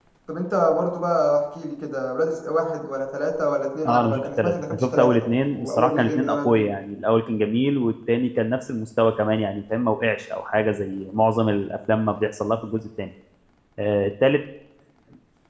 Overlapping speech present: Yes, from 3.9 s

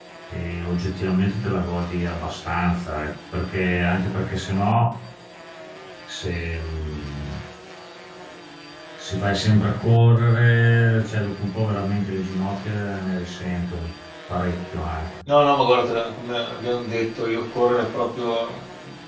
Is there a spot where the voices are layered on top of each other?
No

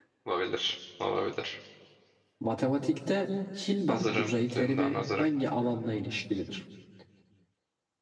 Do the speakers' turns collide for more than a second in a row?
Yes, from 3.9 s

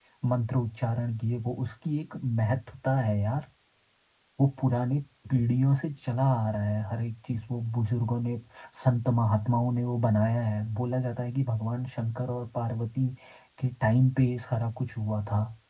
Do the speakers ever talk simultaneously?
No

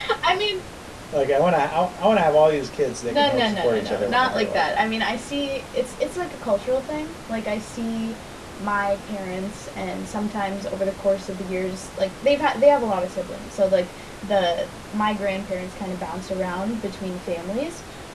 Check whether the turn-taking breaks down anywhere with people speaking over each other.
Yes, from 3.1 s

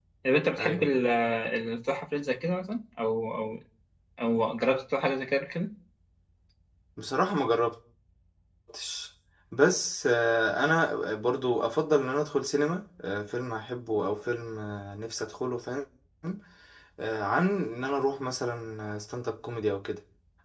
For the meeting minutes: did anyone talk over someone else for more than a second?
No

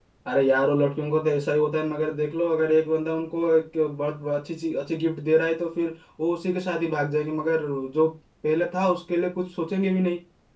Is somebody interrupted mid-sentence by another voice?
No

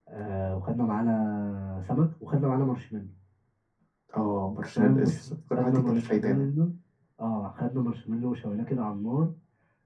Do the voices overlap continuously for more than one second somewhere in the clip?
Yes, from 4.8 s

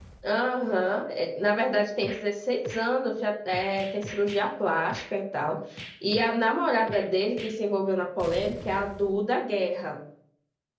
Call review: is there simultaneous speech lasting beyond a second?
No

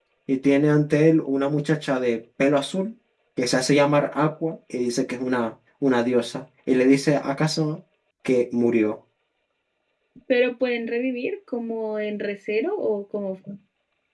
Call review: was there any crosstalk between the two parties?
No

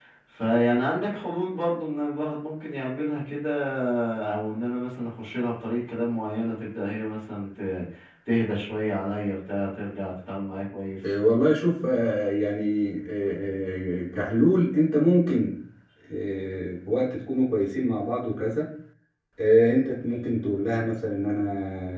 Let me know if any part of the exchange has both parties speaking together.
No

